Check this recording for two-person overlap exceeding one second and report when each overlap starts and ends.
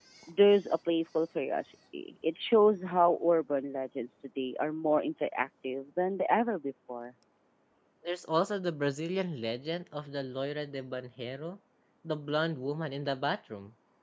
none

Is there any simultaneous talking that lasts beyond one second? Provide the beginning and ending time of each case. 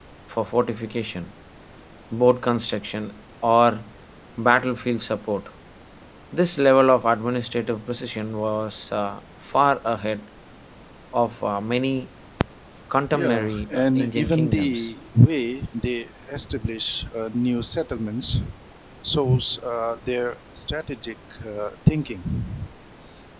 13.1-14.9

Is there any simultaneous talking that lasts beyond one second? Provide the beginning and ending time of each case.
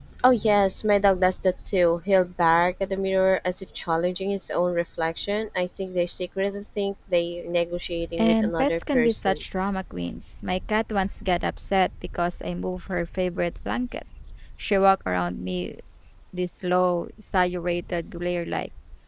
8.2-9.4

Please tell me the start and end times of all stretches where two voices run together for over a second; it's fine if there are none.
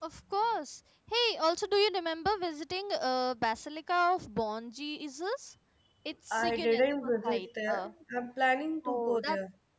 6.3-7.9

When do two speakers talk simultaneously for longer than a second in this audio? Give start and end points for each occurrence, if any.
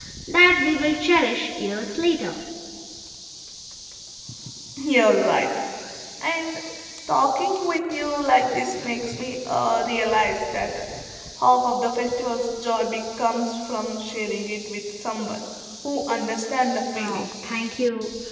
none

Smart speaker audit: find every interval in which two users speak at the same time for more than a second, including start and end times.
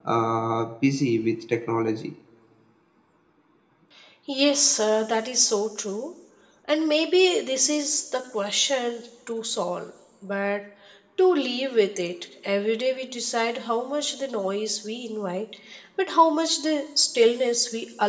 none

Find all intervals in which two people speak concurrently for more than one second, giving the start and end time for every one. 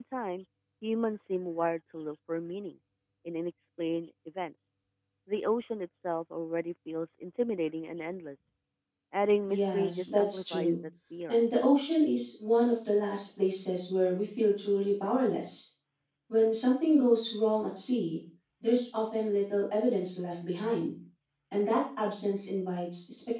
9.5-10.7

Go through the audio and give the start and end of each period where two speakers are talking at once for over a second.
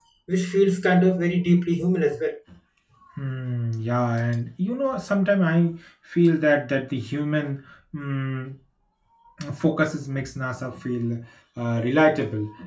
none

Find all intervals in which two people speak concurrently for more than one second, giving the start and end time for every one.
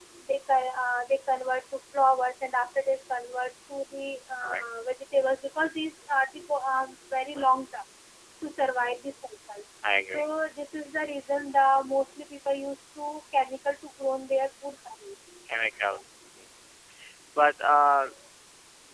none

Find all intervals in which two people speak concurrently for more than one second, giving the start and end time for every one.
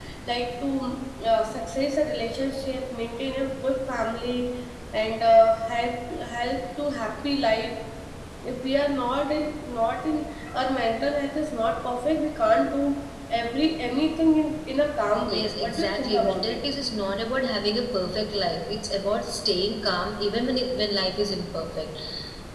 15.3-16.6

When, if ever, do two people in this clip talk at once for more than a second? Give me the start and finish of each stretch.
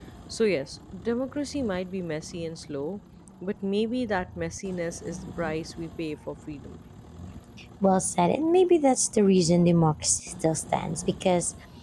none

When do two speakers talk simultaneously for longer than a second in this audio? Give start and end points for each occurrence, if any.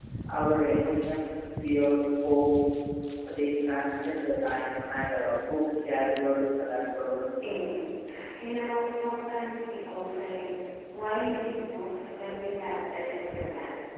none

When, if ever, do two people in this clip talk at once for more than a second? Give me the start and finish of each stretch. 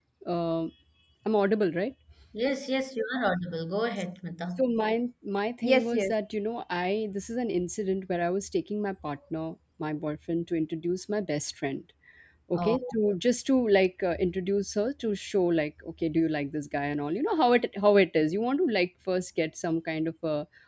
none

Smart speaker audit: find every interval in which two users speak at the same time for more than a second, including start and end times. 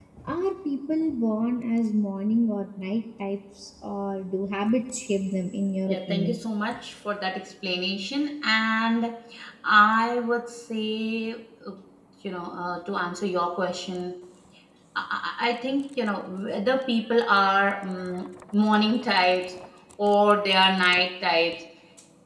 none

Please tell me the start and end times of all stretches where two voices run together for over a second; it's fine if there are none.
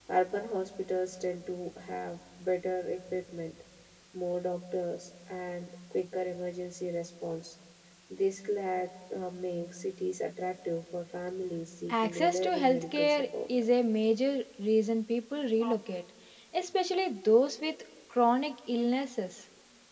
11.9-13.5

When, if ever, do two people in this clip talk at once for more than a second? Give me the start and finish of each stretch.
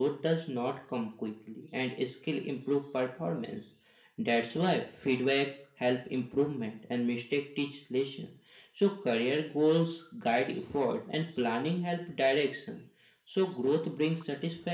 none

